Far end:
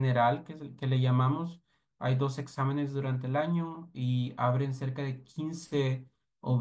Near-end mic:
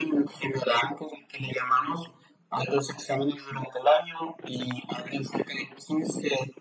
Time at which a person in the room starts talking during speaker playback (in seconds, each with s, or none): none